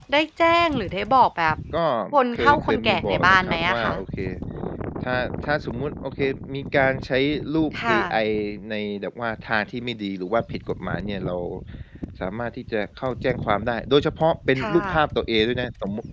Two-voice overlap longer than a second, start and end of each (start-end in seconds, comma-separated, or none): 2.3-3.9